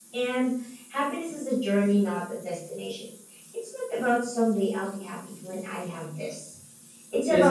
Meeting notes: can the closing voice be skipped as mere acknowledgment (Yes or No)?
Yes